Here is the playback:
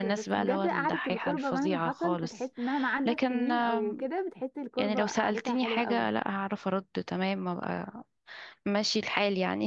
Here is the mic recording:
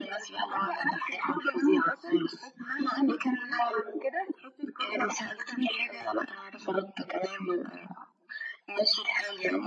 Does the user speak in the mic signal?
No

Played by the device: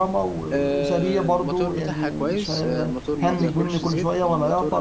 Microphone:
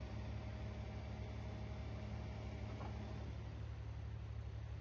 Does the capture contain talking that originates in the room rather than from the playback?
No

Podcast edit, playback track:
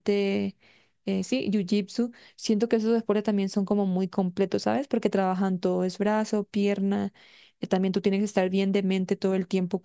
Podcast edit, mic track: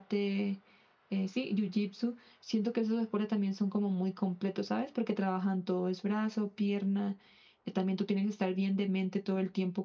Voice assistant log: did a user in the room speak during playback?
No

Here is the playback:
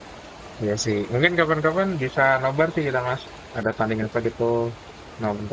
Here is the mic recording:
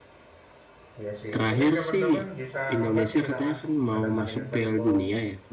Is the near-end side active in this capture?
Yes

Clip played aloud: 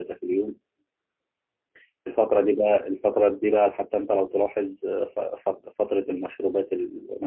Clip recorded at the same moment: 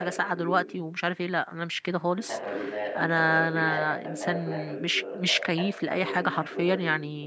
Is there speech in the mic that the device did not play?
Yes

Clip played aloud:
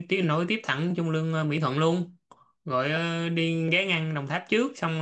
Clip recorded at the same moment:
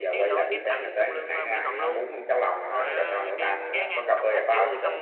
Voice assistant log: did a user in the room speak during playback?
Yes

